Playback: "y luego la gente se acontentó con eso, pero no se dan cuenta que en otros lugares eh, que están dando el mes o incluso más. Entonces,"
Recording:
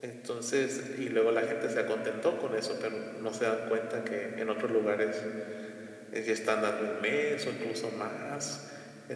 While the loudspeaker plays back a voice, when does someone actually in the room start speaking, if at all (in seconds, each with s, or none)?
none